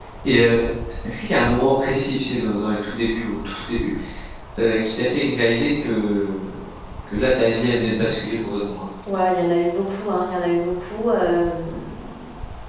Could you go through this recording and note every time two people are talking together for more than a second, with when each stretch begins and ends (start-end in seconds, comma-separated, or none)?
none